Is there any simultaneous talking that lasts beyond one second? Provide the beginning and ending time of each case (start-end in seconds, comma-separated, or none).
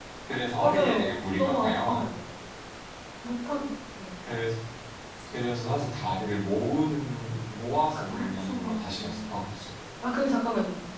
0.6-2.0, 8.0-9.3